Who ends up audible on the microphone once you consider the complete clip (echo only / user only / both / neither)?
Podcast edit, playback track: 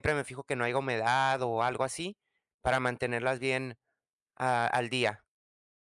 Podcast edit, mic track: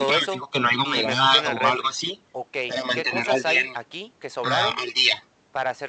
both